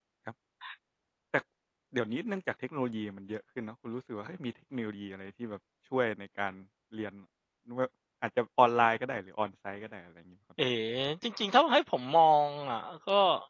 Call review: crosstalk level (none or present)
none